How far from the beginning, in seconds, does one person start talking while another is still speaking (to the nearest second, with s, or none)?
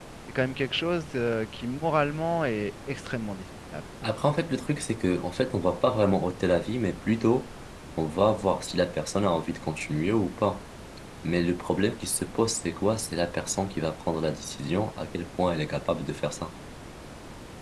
none